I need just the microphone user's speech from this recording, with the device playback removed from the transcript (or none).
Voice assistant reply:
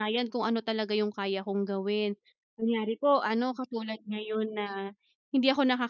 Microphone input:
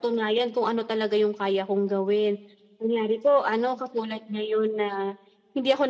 none